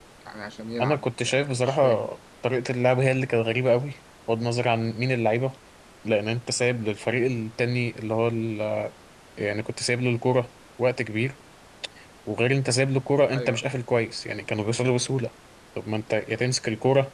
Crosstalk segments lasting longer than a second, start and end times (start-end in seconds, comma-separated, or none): 0.8-2.0